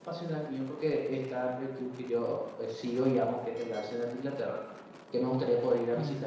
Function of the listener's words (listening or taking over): listening